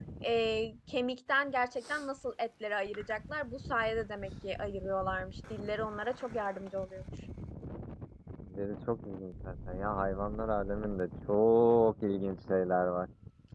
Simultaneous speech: No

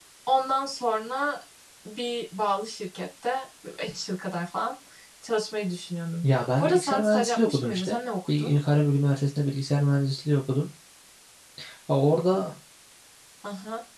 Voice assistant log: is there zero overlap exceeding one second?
No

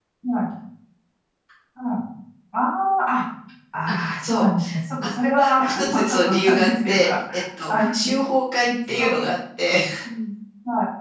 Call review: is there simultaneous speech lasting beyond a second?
Yes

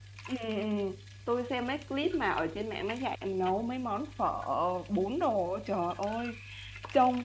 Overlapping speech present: No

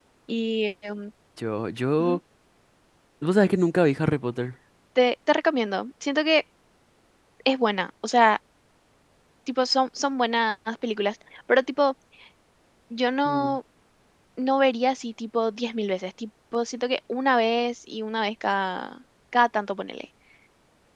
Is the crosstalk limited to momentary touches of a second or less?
Yes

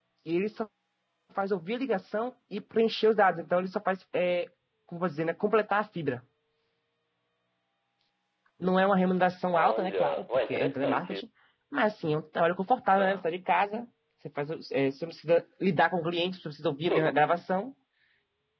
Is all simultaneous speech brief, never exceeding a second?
No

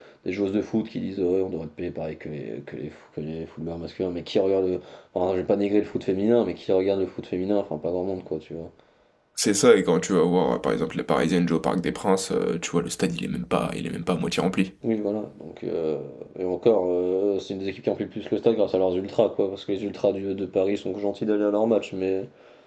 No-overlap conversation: Yes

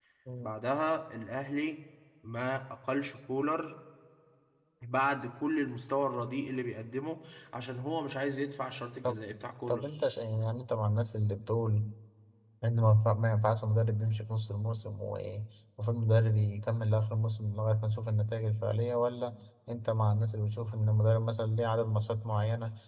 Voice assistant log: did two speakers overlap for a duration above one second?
No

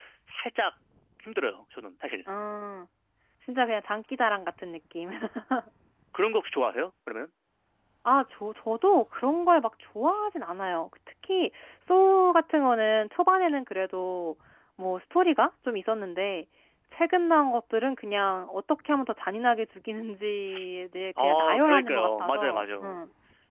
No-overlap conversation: No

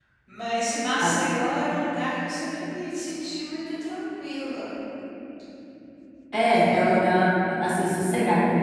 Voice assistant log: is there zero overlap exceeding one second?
Yes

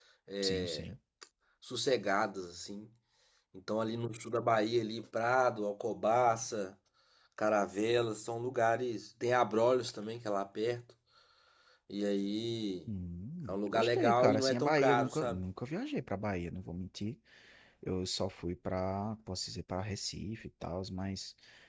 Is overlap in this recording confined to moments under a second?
No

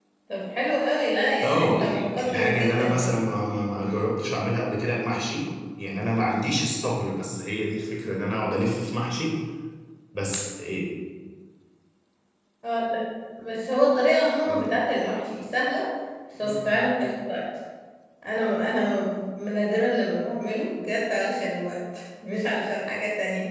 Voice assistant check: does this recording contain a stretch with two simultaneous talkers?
Yes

